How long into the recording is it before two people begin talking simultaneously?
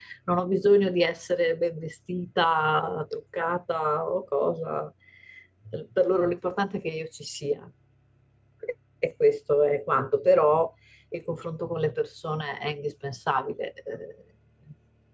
none

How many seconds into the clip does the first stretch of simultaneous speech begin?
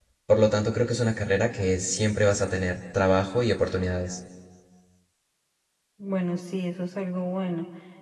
none

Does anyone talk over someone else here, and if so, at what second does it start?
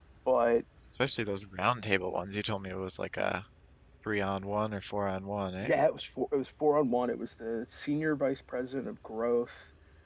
none

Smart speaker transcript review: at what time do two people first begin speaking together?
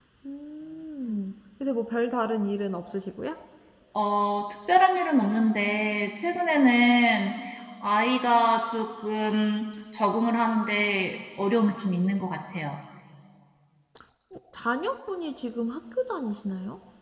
none

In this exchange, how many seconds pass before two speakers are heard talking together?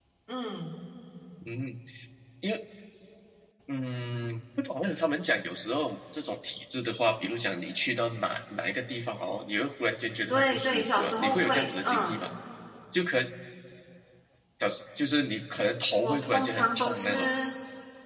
10.3 s

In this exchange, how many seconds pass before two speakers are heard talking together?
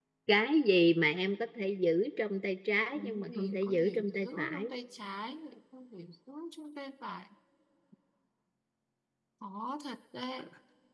3.0 s

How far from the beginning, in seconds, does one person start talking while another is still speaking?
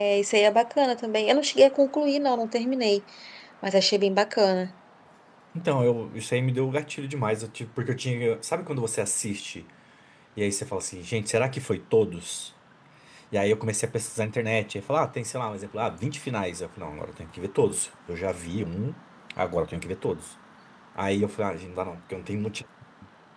none

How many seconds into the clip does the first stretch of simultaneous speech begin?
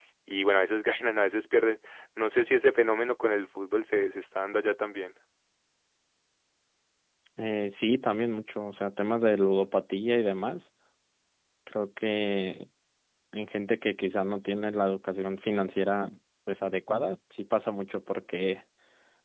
none

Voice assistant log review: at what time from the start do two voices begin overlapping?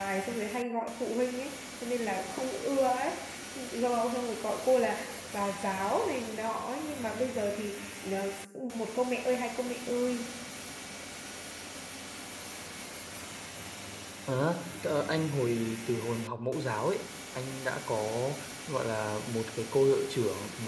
none

